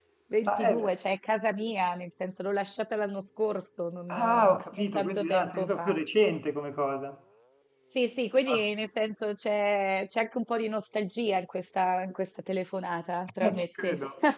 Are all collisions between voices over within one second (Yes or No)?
No